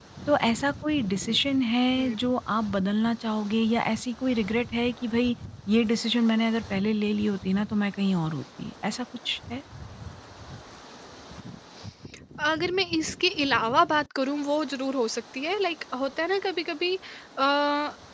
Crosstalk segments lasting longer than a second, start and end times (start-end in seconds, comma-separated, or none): none